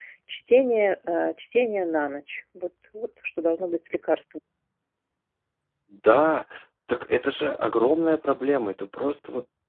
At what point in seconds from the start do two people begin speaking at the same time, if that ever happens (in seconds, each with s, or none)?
none